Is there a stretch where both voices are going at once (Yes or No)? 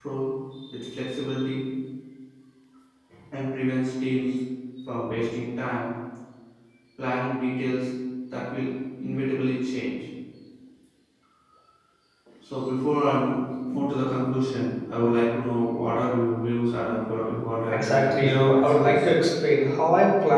Yes